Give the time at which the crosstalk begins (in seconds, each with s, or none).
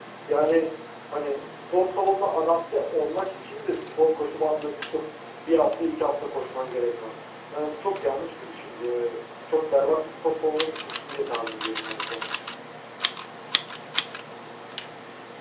none